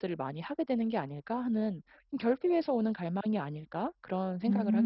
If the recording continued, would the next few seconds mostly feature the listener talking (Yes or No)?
Yes